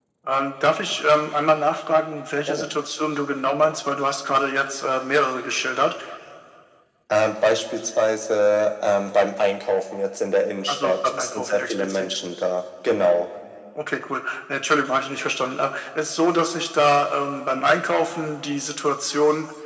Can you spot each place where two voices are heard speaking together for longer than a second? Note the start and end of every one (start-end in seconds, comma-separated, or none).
10.7-12.1